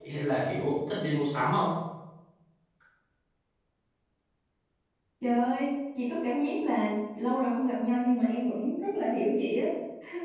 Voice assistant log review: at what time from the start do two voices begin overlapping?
none

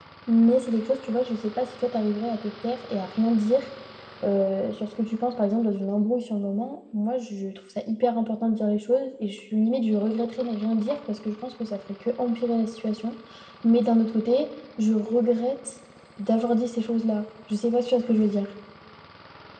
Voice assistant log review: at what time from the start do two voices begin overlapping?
none

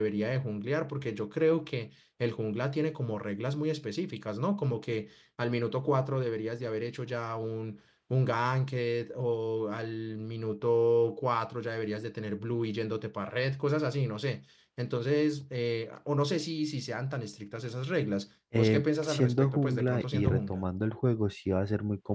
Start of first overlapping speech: 18.5 s

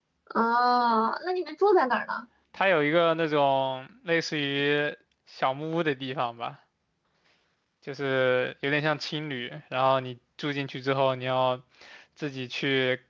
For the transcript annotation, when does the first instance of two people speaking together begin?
none

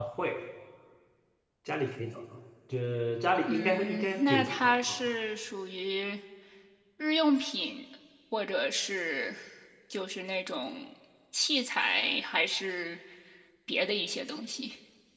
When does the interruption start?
3.5 s

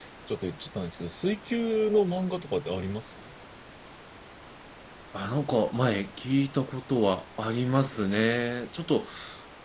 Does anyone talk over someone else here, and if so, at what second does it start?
none

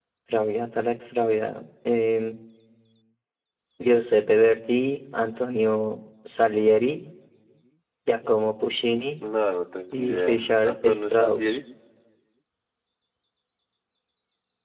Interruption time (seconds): 9.9 s

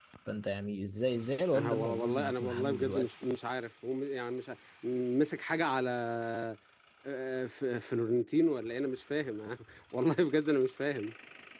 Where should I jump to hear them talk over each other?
1.5 s

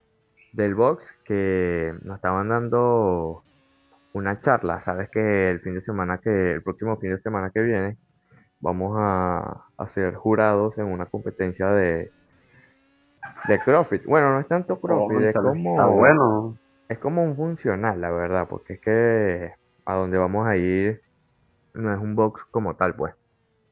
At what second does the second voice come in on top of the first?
14.9 s

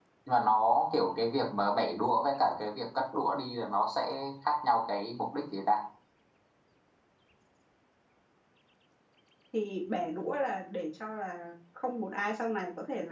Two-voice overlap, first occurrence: none

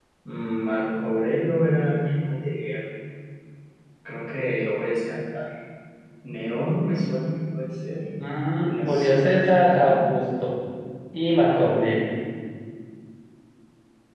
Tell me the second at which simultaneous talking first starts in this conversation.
8.7 s

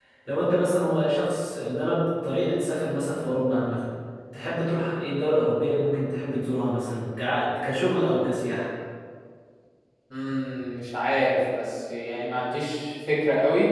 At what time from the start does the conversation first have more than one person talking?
none

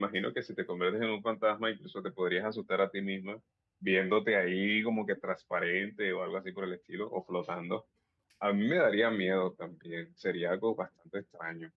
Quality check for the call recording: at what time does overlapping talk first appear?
none

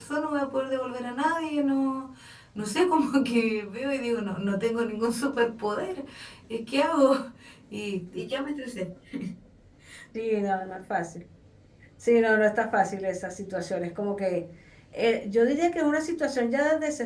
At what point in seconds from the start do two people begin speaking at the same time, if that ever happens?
none

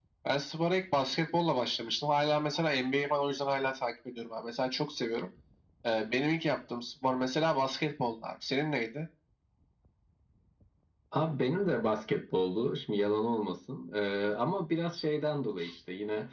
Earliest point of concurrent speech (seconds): none

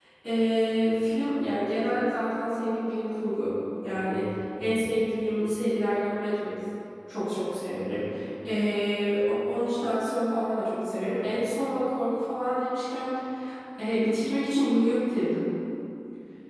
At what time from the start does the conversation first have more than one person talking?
none

